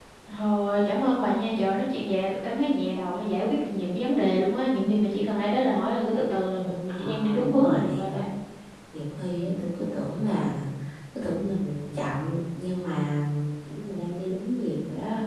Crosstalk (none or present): present